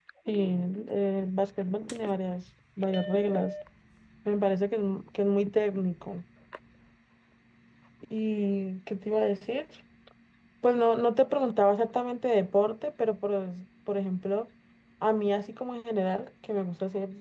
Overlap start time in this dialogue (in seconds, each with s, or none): none